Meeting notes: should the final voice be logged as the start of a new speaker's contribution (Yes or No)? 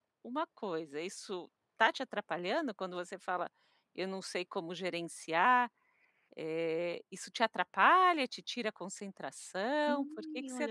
Yes